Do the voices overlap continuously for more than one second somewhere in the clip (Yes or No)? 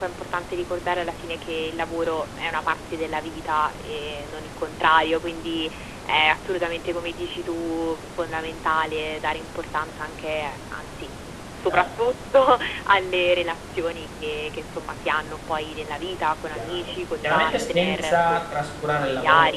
Yes